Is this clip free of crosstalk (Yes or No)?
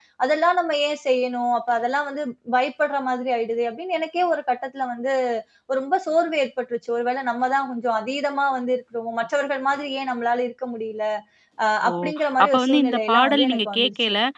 No